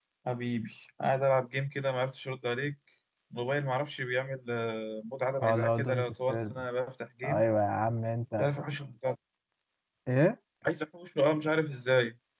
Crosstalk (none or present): present